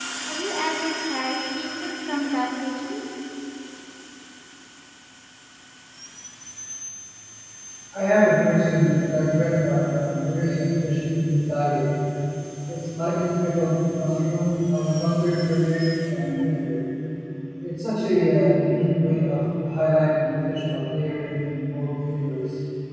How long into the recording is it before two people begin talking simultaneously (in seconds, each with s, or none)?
none